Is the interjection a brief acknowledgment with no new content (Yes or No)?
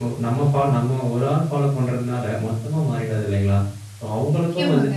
Yes